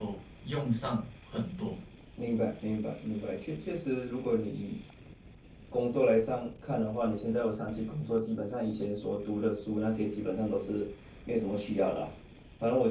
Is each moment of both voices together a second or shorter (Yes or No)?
Yes